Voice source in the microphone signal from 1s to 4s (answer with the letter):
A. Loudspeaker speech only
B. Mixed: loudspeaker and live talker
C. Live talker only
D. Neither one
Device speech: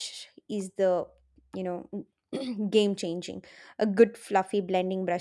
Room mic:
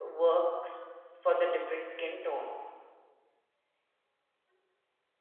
C